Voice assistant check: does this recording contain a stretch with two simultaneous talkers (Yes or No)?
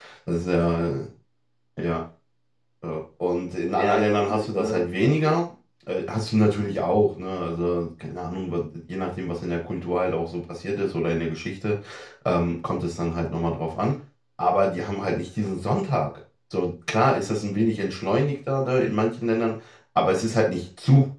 Yes